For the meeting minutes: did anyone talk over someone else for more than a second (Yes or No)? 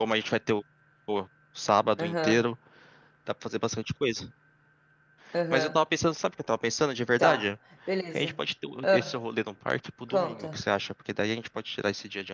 No